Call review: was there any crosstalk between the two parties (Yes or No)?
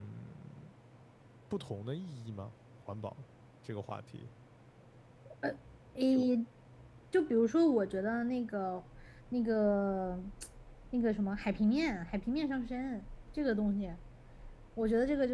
No